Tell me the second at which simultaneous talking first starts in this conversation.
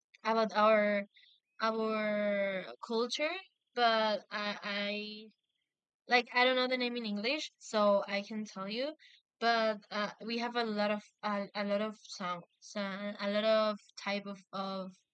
none

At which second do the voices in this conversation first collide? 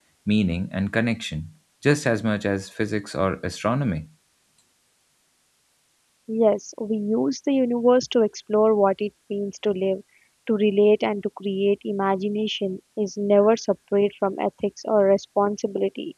none

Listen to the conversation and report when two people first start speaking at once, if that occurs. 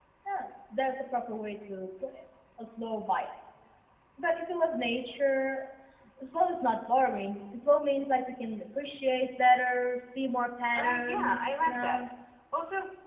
10.8 s

